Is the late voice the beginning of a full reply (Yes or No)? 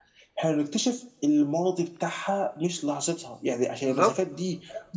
No